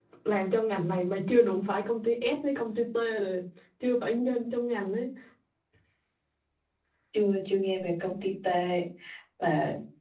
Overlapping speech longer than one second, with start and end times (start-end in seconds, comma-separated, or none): none